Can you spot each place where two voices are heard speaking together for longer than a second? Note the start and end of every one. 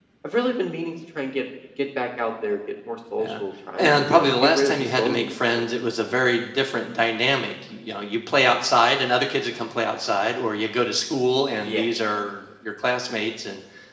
3.8-5.7

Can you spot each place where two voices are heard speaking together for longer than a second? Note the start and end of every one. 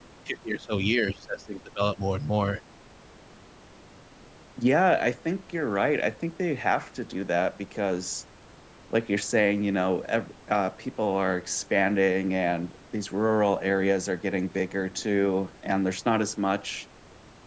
none

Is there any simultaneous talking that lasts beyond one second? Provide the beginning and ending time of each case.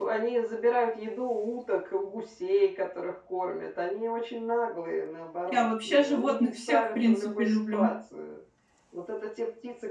5.5-7.9

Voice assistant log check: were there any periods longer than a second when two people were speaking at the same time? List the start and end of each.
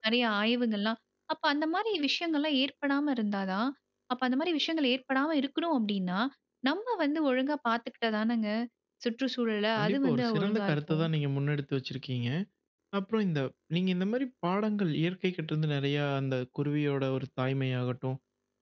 9.8-11.0

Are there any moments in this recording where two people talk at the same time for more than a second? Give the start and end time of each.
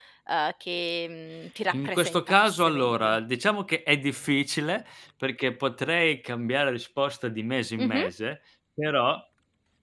1.7-3.2

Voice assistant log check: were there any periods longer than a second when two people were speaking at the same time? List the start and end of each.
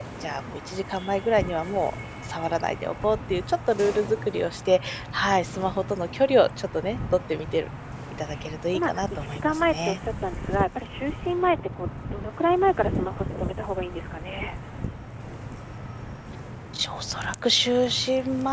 8.7-10.0

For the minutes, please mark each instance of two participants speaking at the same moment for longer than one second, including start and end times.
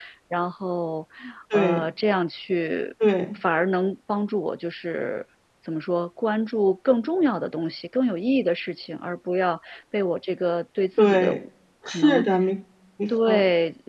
none

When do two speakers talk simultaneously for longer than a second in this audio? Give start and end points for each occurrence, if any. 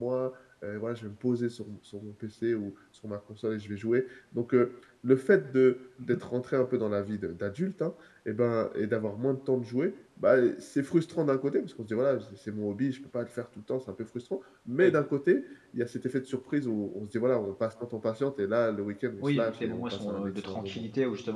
19.2-20.9

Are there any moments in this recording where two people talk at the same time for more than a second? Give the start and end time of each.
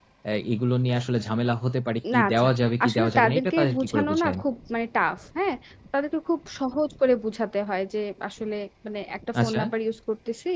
2.8-4.4

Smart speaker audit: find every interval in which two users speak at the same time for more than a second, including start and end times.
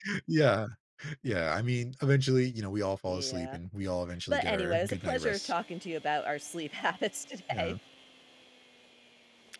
4.3-5.5

